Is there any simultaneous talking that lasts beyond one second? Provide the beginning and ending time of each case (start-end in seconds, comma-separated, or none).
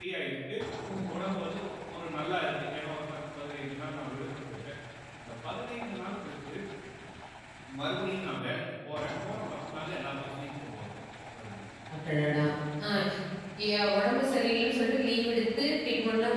none